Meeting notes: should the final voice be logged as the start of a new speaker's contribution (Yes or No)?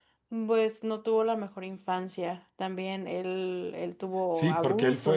Yes